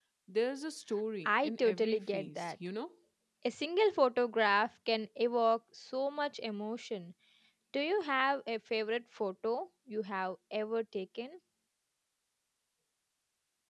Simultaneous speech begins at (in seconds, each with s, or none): 1.2 s